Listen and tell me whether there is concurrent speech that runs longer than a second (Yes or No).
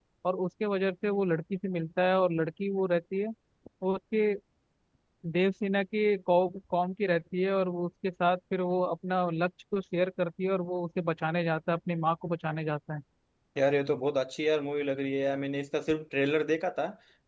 No